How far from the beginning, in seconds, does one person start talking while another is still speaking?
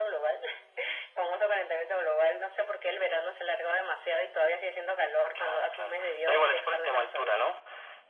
5.3 s

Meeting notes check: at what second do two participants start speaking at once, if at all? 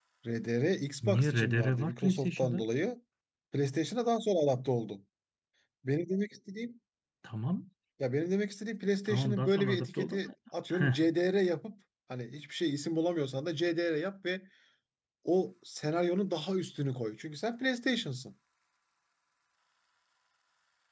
1.1 s

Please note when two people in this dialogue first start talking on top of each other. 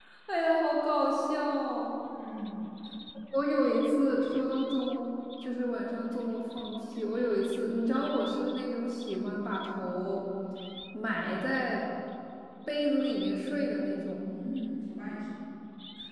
none

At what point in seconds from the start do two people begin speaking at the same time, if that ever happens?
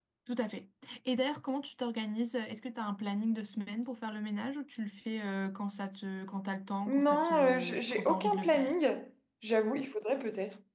6.9 s

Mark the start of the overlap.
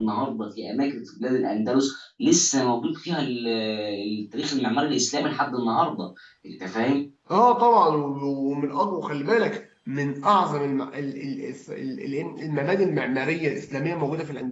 none

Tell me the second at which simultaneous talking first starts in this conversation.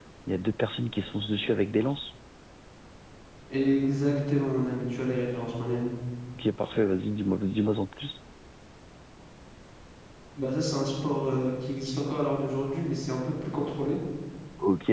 none

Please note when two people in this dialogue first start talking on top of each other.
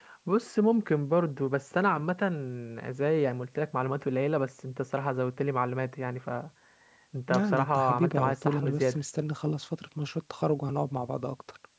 7.4 s

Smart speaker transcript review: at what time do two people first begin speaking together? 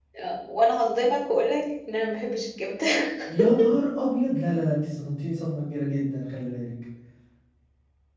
none

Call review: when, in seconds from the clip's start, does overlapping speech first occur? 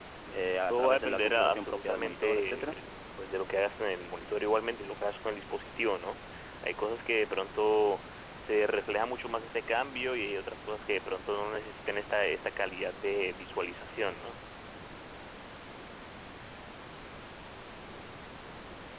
0.7 s

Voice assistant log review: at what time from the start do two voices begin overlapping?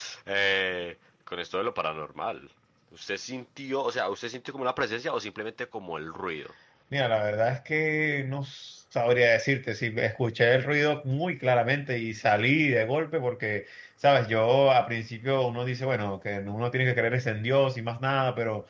none

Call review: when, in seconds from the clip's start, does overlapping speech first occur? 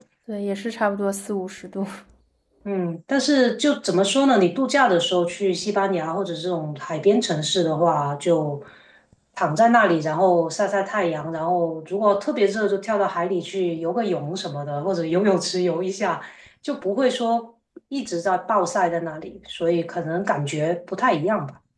none

